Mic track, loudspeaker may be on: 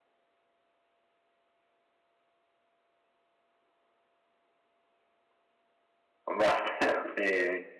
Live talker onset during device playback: 6.2 s

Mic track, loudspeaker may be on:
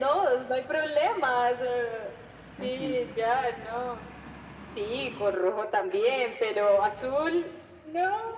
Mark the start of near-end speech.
2.6 s

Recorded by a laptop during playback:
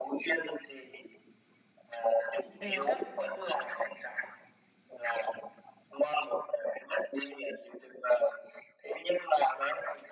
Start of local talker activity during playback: 2.6 s

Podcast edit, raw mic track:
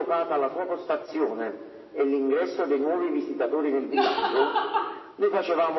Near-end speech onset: 3.9 s

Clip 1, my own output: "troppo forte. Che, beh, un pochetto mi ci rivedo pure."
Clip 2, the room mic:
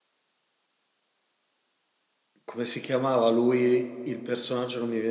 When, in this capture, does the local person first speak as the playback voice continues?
2.5 s

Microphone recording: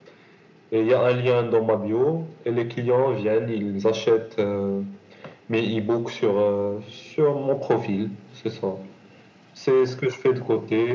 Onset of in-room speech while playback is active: none

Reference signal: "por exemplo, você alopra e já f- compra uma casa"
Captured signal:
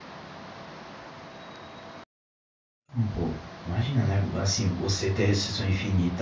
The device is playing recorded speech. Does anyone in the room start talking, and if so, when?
2.9 s

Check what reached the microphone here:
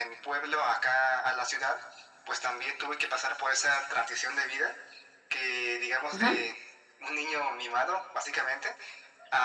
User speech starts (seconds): 6.1 s

